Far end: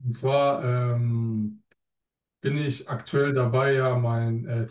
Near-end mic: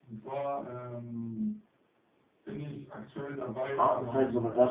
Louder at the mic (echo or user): user